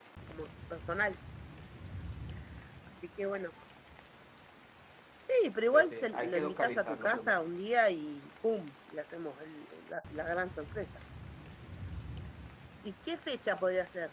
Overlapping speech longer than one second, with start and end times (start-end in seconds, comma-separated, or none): 5.7-7.3